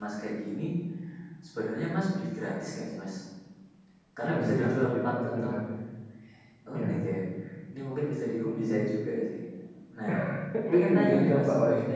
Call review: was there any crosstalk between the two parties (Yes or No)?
Yes